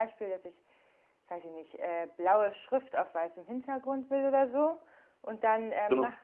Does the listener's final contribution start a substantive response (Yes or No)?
No